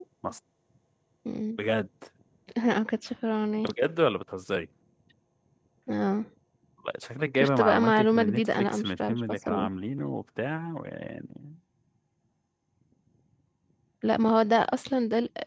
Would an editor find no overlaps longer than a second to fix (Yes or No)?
No